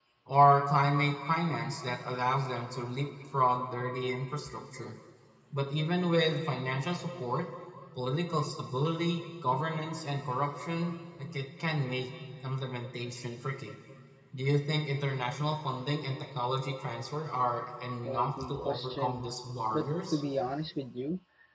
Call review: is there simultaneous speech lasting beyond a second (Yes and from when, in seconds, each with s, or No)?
Yes, from 18.0 s